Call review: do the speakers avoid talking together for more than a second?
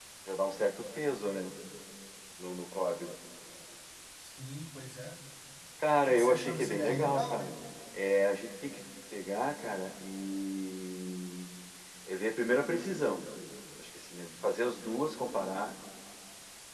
No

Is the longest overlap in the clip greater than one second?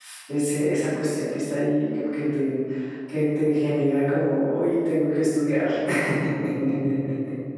No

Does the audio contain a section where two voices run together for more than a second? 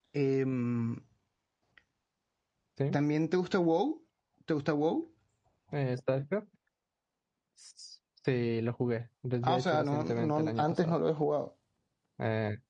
Yes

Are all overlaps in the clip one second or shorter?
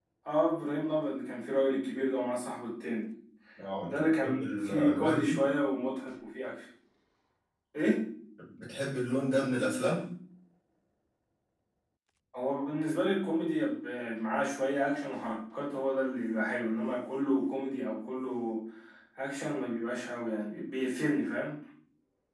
No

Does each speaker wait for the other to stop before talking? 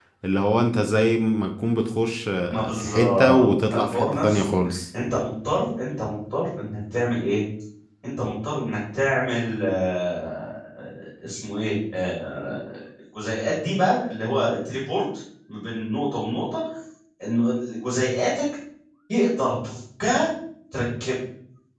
No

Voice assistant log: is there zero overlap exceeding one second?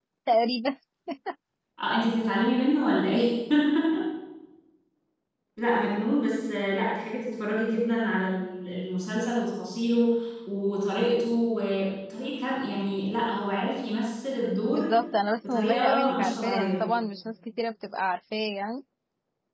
No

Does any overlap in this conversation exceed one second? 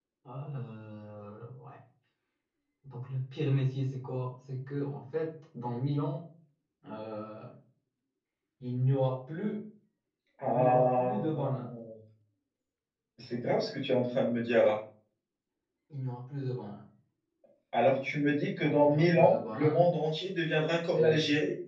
Yes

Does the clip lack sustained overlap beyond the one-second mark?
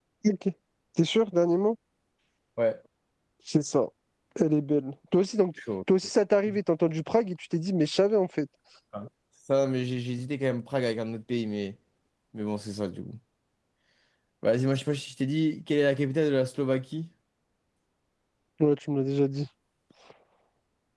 Yes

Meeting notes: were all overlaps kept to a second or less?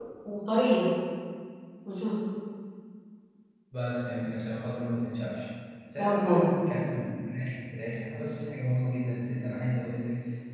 Yes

